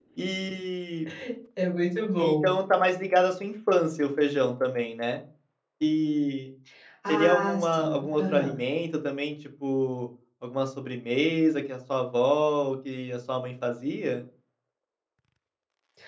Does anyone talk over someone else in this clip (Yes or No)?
Yes